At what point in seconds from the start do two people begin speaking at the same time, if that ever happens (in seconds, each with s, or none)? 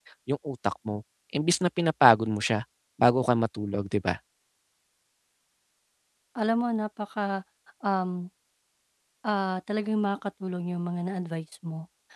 none